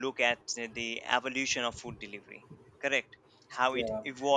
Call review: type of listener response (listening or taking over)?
listening